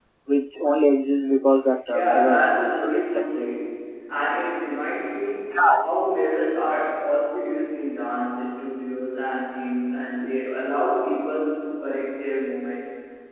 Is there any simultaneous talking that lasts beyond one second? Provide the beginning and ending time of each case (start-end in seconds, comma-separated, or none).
1.9-3.3